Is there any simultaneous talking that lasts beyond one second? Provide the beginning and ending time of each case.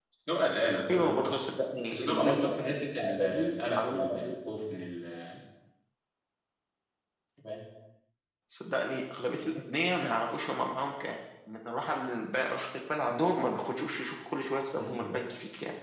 1.9-4.3

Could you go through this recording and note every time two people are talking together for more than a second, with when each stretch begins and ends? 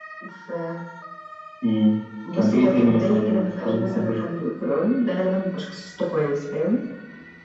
2.3-4.2

